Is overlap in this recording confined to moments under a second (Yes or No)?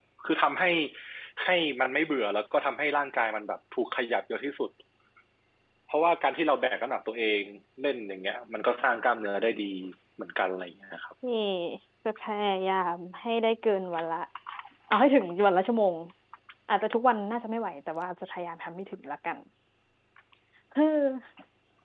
Yes